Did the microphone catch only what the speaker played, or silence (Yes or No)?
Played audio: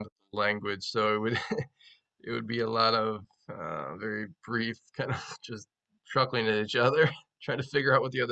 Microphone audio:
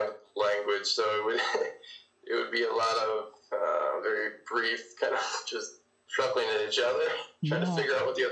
No